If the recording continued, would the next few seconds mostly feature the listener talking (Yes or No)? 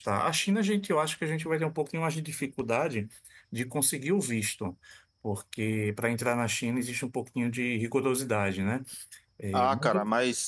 Yes